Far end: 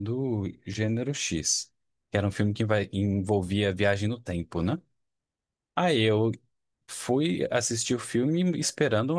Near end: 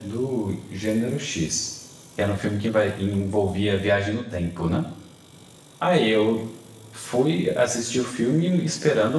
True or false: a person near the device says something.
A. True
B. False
B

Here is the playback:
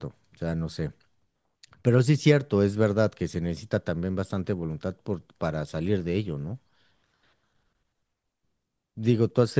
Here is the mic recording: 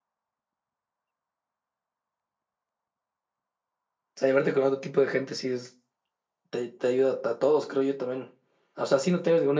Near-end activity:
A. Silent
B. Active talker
B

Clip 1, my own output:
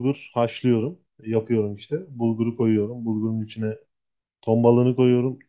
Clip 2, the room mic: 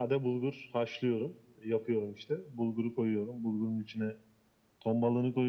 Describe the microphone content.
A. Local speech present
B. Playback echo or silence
B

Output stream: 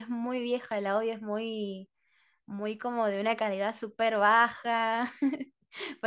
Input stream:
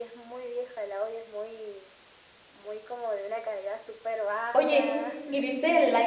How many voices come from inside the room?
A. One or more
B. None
A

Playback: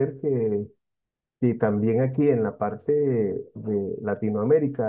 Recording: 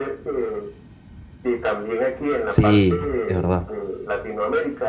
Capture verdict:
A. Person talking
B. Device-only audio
A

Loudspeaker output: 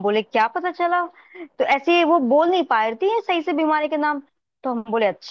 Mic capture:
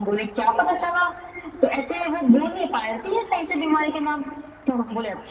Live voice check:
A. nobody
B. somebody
A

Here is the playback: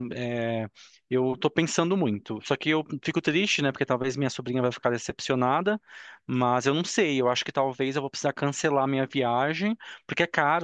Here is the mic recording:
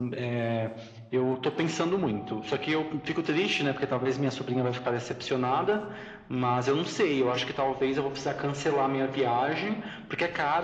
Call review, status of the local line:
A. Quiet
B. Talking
A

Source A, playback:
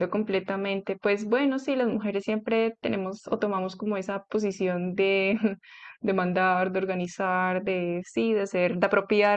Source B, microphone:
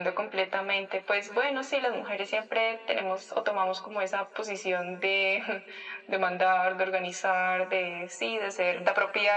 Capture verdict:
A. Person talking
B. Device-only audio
B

